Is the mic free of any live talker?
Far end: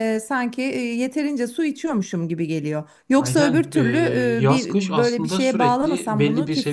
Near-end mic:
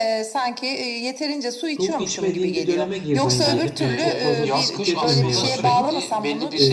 No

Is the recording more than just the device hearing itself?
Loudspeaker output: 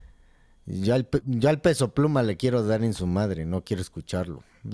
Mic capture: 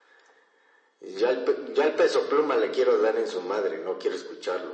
No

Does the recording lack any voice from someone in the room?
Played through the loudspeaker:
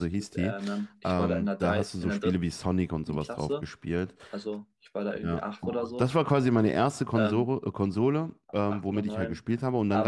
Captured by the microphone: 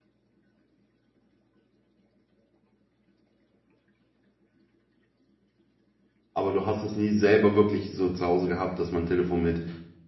No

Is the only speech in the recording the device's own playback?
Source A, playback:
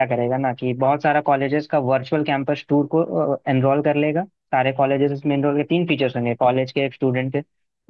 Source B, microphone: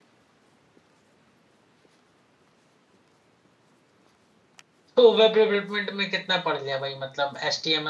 No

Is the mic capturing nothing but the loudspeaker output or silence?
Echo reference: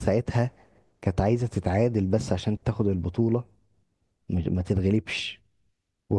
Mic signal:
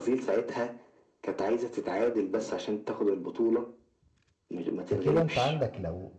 No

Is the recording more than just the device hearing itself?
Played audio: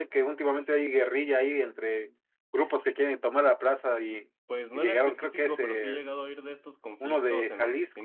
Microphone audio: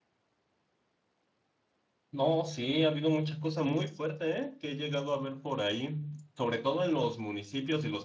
Yes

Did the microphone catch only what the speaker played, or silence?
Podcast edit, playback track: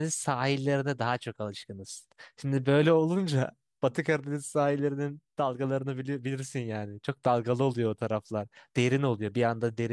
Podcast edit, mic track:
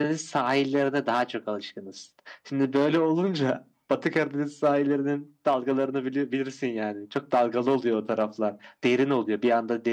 Yes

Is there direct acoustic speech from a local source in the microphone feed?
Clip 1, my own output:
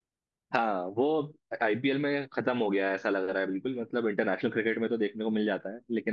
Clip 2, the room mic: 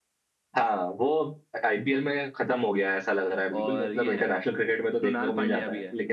Yes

